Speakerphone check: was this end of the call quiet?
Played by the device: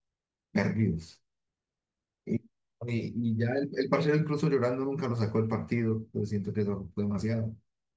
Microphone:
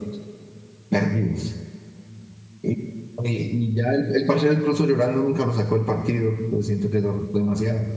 Yes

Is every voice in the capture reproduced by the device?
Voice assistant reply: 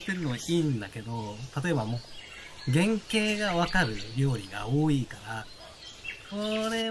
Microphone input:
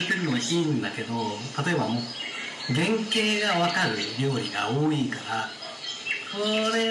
Yes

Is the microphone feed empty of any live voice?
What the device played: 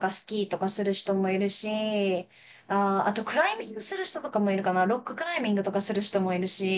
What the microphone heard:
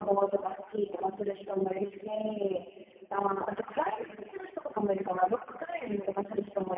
Yes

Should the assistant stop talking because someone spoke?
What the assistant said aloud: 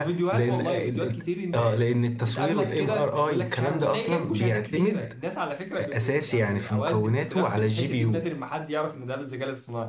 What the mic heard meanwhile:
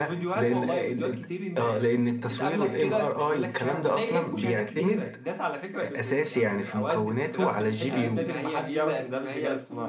Yes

